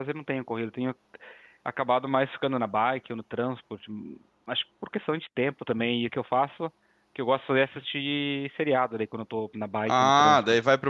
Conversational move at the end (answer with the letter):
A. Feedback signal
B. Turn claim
B